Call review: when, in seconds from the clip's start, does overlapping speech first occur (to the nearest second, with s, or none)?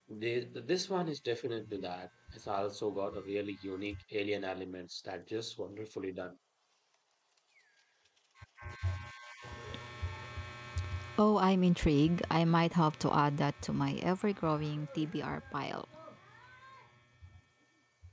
none